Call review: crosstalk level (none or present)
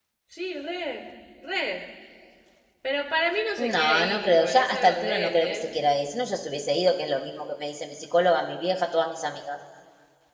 present